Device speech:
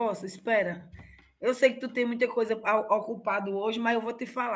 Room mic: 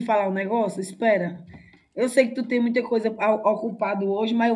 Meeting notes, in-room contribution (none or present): none